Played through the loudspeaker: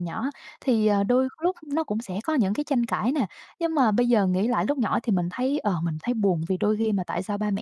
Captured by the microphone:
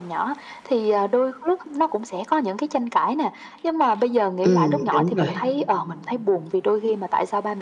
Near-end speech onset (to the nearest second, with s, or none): 4 s